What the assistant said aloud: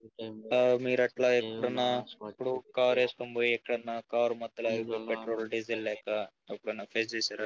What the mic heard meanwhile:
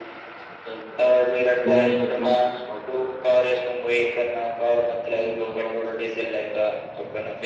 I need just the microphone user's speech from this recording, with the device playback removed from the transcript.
దుంతో తంత

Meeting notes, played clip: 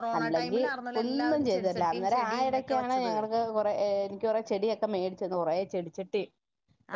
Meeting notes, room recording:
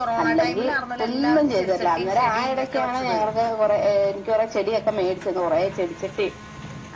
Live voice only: none

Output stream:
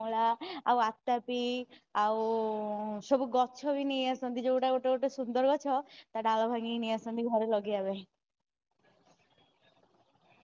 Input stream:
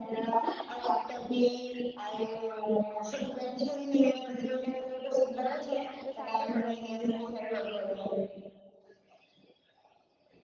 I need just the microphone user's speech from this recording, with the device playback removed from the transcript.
ଯୋଉ ସାଙ୍ଗ ଛଡା କୁହନ୍ତି ନା

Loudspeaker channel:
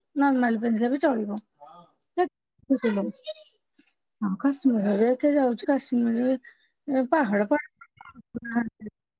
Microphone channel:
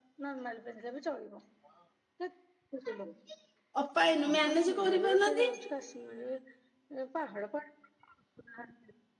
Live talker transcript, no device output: ଅପା ଇନୁ ମ୍ୟାନେଜେ କରିପାରୁନାହାନ୍ତି।

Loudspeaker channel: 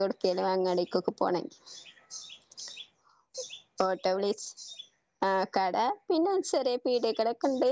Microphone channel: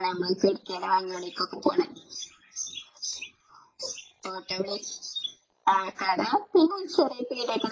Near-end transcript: none

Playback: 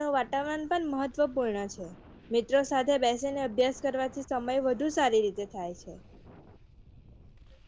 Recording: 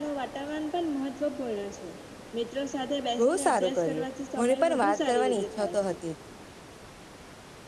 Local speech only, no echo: બહુ સારું કર્યું. મને પણ વાત કરવાની ઈચ્છા તો હતી.

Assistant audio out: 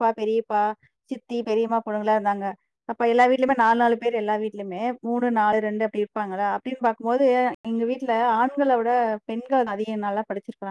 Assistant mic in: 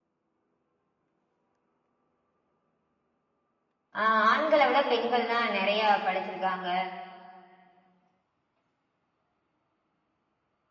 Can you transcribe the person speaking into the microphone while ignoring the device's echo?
அ ஆண்கள விட பெண்கள் தா நெறைய படிச்சிருக்காங்க

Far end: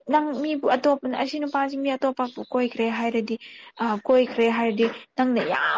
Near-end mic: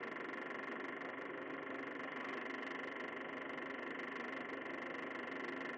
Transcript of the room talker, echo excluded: none

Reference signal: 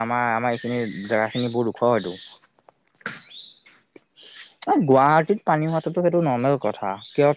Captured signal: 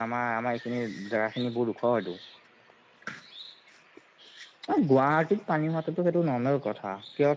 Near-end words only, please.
none

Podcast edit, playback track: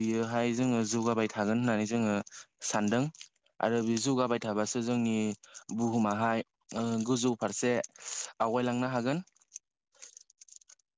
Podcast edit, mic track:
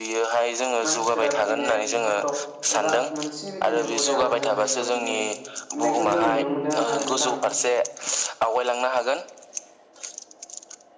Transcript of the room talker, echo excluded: मानसि ओजा बिदिनो फटक एबा मोनसे बिदिनो बरिया मोजां जायगायाव बिदिनो होबनायखौ जों नुनो मोनो आरो ना नोंथां

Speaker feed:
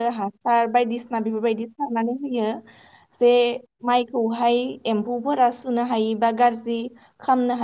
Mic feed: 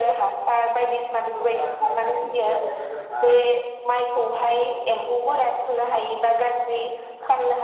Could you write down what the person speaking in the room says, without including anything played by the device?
सोरखौबा सोरखौबा सारनायनि सिगाङावनो जोंहा

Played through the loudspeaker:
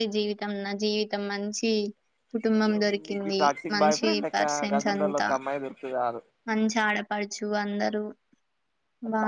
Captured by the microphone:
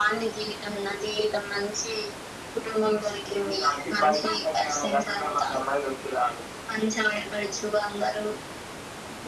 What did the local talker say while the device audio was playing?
none

